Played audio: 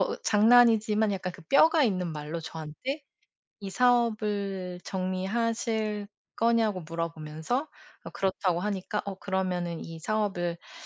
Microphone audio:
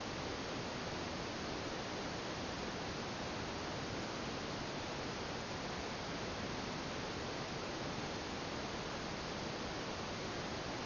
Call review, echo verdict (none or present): none